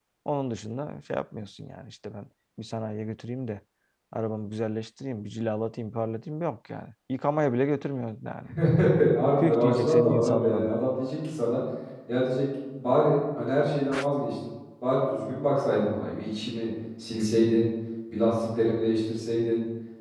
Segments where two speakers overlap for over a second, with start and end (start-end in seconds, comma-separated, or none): 9.4-10.7